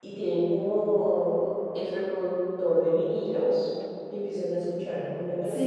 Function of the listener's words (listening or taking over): listening